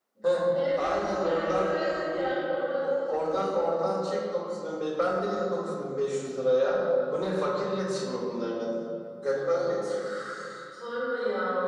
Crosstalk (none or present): present